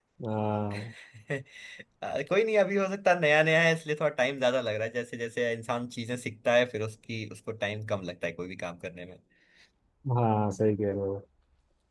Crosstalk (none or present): none